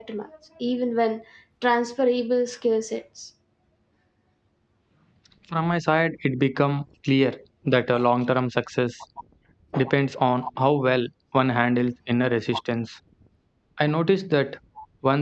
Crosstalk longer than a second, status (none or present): none